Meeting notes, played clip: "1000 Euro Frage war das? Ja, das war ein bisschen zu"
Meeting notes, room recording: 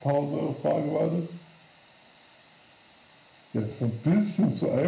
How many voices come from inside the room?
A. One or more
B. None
B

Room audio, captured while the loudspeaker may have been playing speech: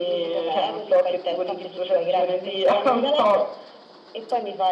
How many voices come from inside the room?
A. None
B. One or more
A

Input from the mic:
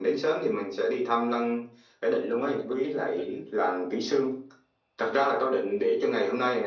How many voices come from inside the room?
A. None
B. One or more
B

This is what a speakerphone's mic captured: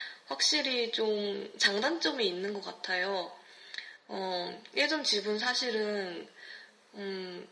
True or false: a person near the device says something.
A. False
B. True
A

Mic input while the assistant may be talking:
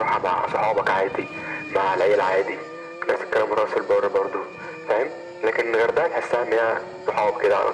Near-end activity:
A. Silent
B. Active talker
A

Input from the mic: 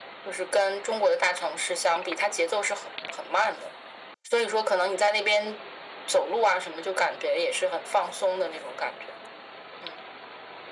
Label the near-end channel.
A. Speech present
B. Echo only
B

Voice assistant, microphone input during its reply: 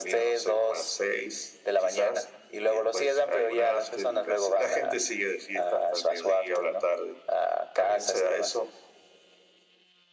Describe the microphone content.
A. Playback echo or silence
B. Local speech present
A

